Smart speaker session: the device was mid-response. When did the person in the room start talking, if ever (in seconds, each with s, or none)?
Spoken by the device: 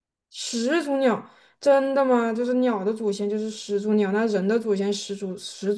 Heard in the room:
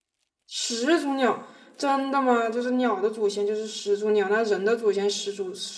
none